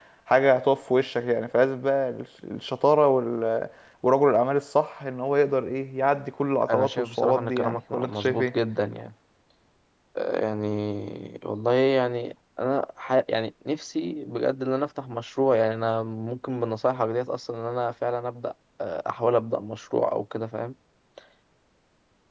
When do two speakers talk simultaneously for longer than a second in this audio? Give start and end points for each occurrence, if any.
6.7-8.5

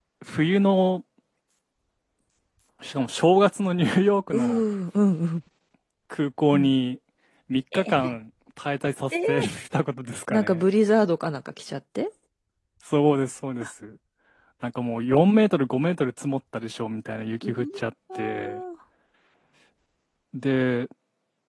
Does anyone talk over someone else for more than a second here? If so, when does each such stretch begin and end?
none

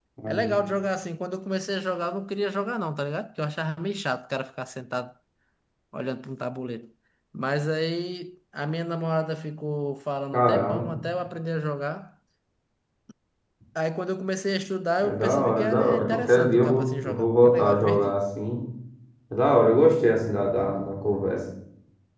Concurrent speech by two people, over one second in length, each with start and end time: 15.0-18.2

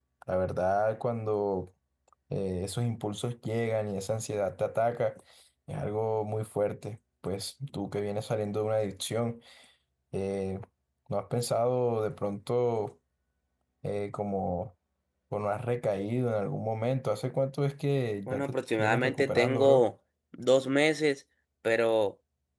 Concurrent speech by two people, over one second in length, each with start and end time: 18.3-19.8

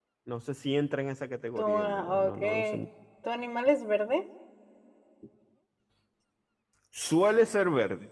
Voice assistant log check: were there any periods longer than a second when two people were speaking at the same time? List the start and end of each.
1.6-2.8

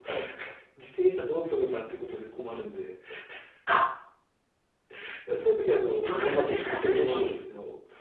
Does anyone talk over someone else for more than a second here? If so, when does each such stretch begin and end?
6.0-7.3

